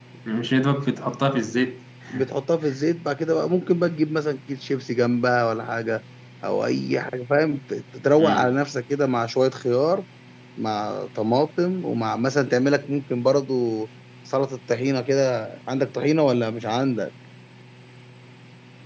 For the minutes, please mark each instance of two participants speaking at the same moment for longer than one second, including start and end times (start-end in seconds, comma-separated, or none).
none